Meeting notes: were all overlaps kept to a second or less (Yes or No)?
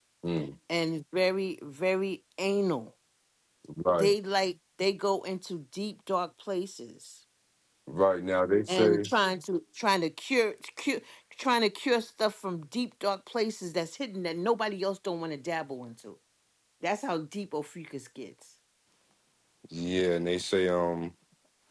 Yes